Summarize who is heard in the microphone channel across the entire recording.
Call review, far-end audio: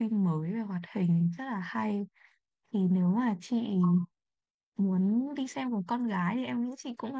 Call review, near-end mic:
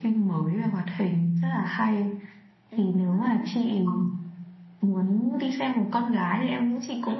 both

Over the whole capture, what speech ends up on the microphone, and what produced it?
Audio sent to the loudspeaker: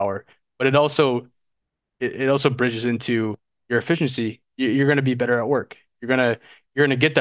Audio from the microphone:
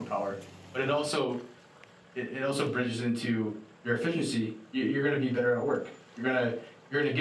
echo only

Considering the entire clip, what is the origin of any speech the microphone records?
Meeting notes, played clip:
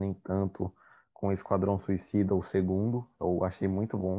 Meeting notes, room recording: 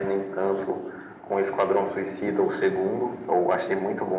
echo only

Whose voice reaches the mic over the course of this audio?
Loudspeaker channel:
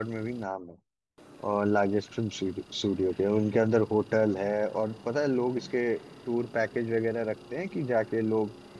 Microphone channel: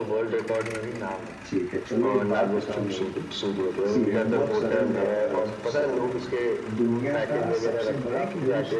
both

